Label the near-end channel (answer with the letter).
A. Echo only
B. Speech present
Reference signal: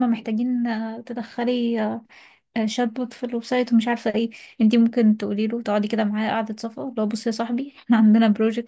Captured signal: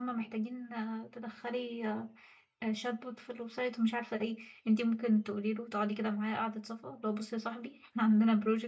A